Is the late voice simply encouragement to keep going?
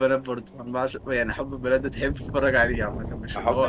No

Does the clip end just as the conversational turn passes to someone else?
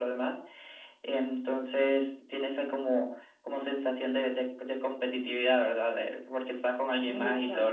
No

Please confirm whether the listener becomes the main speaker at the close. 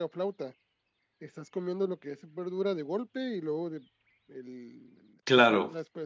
No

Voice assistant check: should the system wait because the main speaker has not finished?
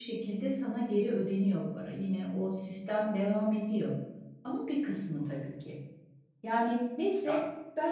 Yes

